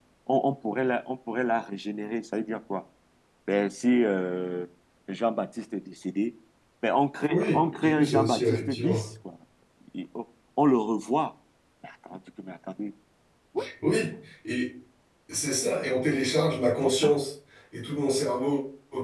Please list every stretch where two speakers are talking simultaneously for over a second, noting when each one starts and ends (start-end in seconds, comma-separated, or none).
7.3-9.0